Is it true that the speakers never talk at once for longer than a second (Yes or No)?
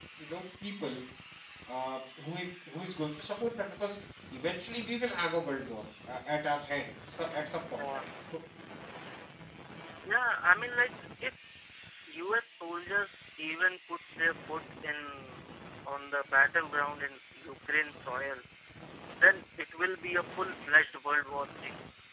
Yes